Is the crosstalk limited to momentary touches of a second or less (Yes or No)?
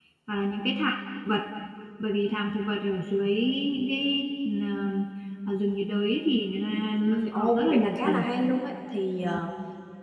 No